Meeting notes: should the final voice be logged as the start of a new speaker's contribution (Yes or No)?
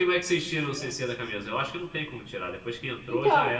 Yes